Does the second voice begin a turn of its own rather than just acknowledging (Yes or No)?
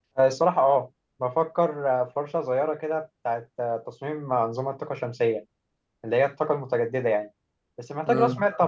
No